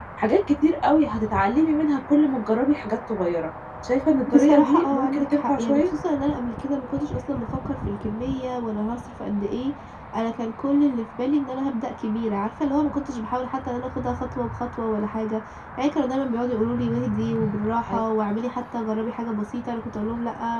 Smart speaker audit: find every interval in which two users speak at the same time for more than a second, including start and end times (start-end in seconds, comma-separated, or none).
4.3-5.8